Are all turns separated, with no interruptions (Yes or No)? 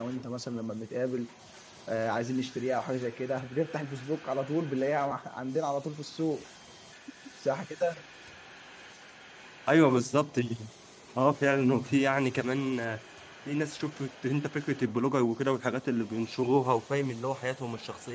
Yes